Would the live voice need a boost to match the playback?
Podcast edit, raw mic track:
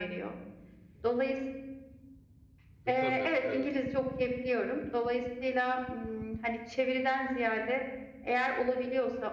Yes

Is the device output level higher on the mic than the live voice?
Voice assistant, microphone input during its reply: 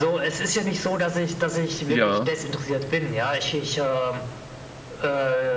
No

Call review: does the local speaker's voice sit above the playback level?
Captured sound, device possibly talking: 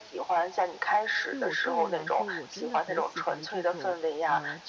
No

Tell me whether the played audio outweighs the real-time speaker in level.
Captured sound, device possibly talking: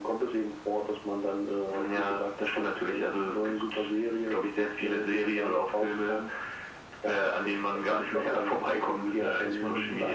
Yes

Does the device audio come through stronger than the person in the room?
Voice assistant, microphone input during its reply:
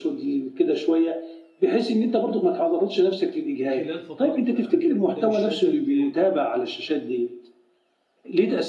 Yes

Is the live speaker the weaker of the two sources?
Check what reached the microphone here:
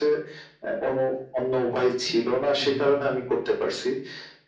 Yes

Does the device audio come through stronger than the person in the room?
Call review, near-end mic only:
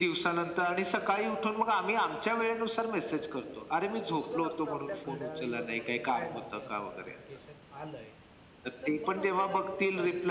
Yes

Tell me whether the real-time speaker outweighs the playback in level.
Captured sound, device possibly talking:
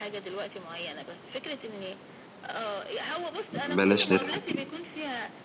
Yes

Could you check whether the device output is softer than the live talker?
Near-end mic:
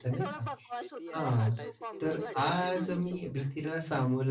Yes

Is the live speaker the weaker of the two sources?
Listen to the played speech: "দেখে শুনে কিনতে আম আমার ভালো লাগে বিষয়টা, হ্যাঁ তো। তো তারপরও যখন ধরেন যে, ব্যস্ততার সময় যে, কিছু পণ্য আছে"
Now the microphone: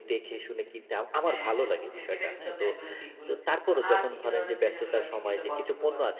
Yes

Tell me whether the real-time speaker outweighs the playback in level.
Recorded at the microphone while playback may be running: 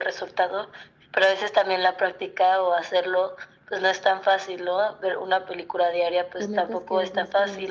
No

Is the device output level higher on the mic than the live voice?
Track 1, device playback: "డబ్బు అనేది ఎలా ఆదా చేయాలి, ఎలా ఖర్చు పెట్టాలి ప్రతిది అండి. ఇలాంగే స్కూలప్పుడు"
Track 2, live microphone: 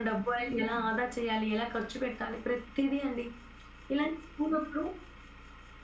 Yes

